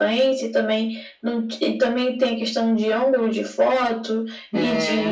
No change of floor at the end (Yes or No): Yes